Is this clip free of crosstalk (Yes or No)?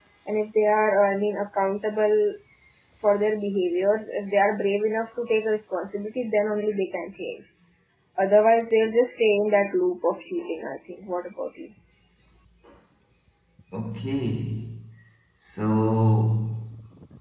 Yes